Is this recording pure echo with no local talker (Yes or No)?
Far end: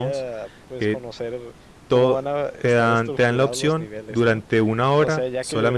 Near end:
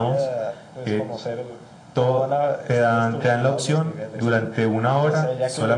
Yes